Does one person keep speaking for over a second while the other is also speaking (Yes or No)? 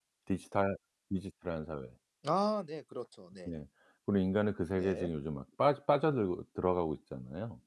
No